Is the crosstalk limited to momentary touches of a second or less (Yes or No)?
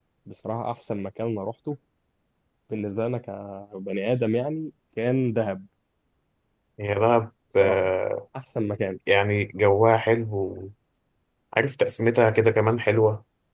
Yes